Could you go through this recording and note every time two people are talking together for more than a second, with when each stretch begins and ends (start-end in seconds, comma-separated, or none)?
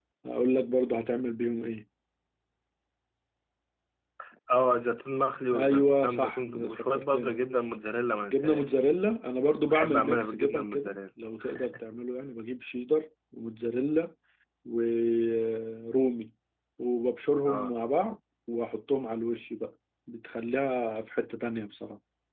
5.5-7.4, 9.7-11.0